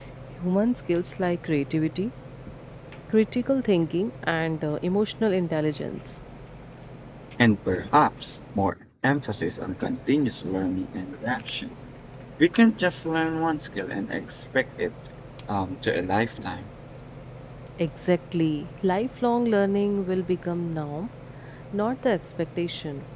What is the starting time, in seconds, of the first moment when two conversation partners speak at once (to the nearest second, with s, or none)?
none